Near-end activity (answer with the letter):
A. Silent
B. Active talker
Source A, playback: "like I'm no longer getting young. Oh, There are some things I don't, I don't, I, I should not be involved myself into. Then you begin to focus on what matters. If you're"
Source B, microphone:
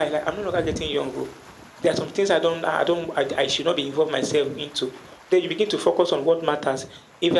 A